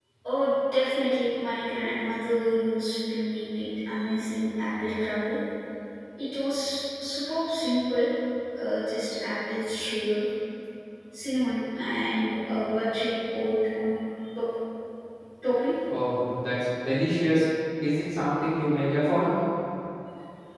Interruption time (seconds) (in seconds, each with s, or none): none